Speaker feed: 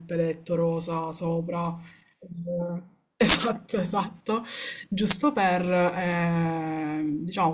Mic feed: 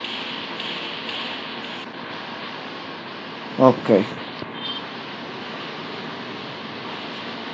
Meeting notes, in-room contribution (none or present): present